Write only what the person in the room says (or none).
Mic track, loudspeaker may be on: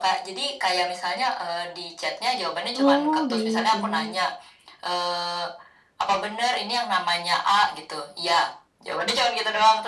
Oh, baik baik.